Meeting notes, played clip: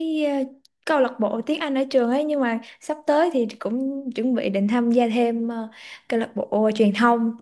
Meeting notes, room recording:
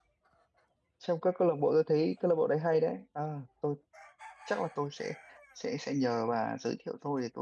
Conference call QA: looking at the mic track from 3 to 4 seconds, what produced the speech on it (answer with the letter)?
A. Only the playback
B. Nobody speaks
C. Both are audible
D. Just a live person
D